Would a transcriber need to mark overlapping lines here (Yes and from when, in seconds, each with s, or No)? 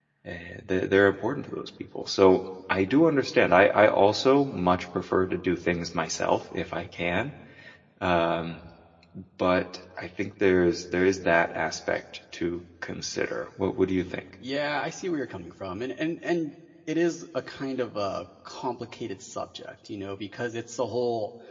No